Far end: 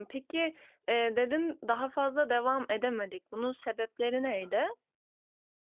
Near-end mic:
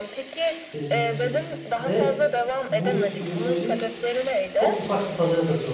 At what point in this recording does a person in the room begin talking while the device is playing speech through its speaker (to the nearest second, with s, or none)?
1 s